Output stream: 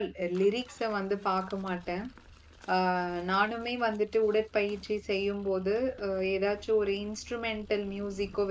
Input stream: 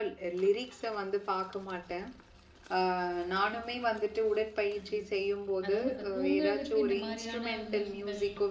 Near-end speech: present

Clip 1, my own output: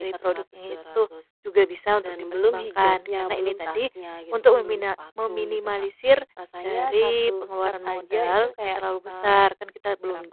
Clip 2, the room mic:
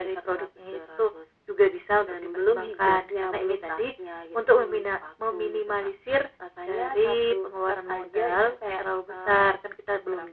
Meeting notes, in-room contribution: none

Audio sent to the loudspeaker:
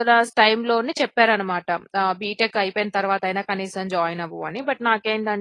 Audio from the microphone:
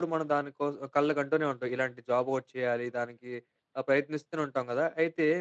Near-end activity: present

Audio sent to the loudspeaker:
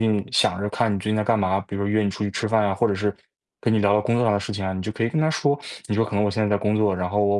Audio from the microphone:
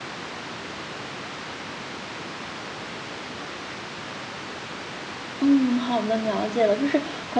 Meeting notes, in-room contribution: present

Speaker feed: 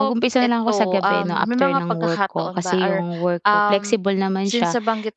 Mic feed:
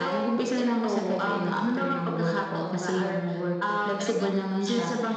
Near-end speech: present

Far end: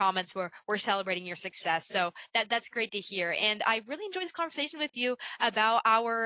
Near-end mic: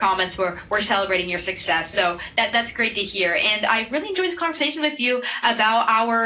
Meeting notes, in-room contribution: none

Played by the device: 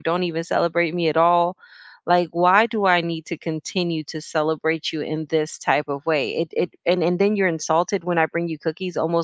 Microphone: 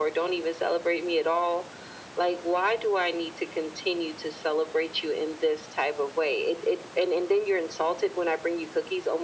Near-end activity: none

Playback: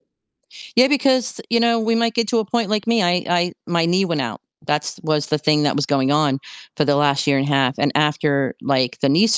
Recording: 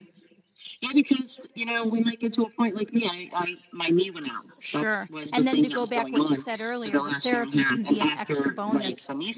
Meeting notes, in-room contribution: present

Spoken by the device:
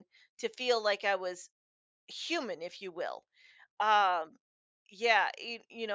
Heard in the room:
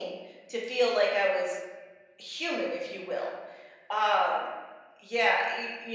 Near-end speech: none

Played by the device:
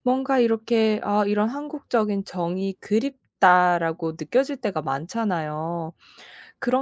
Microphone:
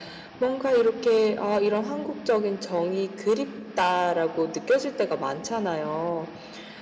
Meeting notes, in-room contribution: none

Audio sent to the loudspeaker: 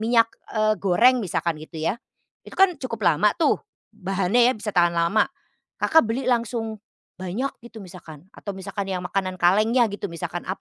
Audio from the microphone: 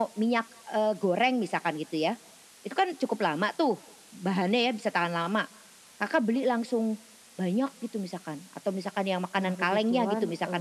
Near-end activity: present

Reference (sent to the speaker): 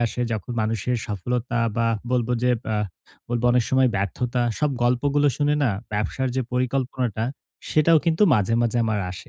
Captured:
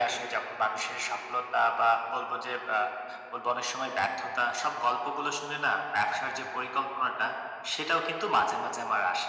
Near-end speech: none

